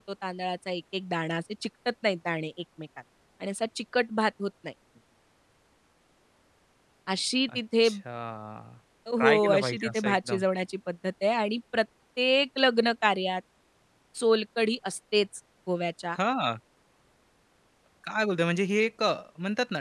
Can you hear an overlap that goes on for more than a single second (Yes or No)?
Yes